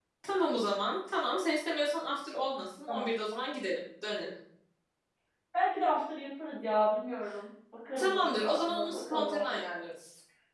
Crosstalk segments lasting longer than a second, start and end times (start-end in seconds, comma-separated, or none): 8.0-9.6